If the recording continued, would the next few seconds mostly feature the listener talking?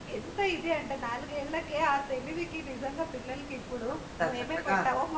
No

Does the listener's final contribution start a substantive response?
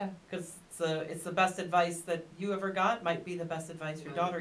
No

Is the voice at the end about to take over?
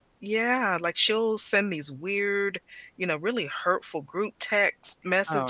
No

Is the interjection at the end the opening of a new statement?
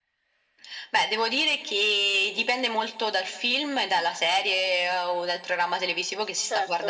No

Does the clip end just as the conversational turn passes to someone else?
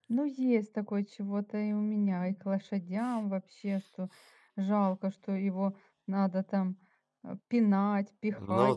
Yes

